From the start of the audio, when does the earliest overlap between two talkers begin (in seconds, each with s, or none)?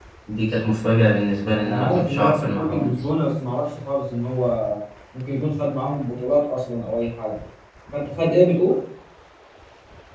1.6 s